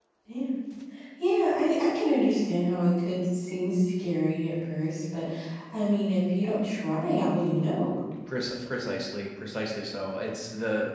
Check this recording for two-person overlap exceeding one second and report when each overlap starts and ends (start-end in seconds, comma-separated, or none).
none